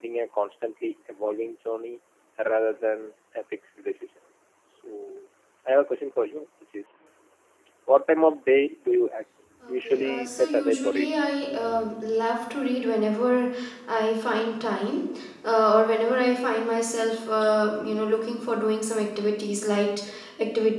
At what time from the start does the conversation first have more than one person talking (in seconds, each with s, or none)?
9.6 s